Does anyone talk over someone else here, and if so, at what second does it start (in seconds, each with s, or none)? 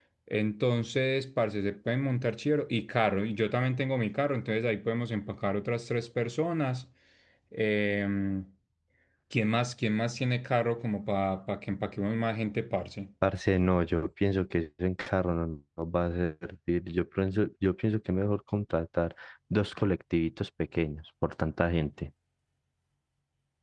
none